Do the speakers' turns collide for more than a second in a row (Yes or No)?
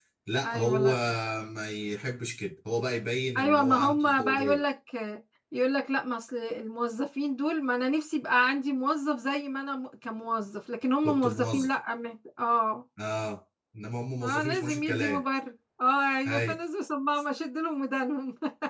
Yes